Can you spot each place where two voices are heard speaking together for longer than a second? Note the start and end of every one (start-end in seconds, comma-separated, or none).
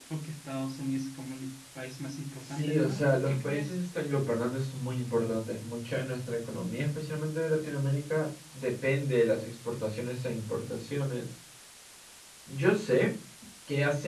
2.4-3.7